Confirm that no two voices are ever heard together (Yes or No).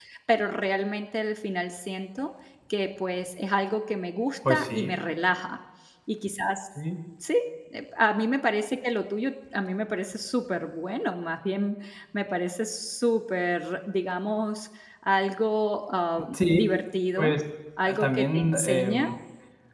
No